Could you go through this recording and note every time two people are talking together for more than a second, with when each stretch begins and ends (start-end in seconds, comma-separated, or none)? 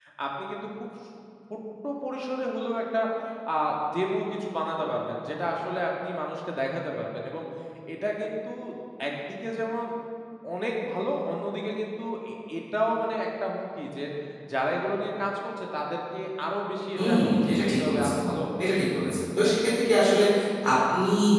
17.0-18.2